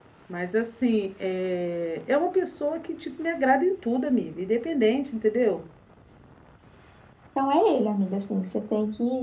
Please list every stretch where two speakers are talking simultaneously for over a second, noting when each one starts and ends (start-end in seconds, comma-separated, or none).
none